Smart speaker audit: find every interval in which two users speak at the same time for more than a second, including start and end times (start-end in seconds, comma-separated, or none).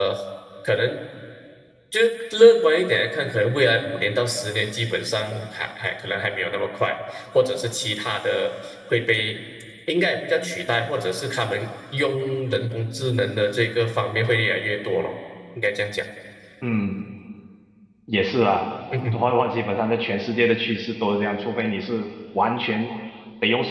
none